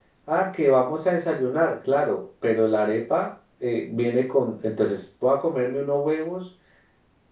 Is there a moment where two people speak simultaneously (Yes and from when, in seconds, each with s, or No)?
No